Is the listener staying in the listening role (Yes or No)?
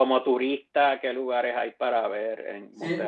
No